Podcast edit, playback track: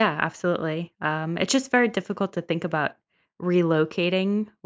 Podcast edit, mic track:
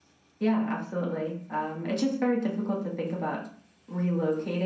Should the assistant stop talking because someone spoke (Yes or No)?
No